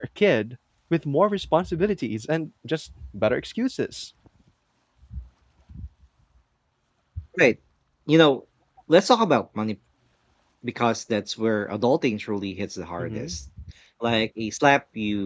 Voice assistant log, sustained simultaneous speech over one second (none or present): none